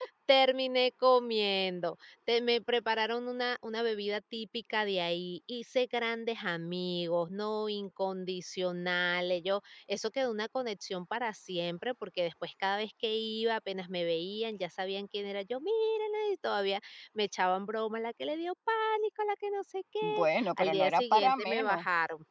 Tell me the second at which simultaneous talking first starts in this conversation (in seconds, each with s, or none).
20.0 s